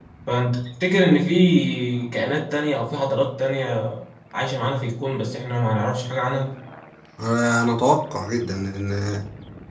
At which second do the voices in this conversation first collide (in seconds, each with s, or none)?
none